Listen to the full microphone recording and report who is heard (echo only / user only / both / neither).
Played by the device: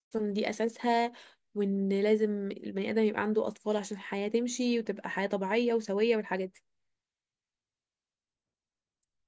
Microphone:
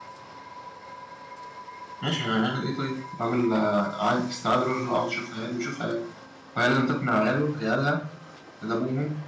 user only